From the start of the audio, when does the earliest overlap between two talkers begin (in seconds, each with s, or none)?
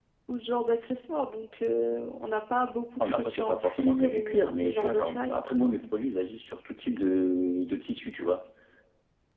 3.0 s